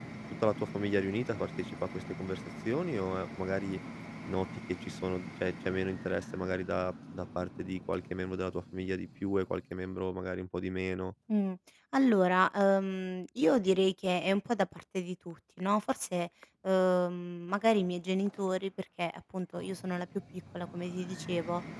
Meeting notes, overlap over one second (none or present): none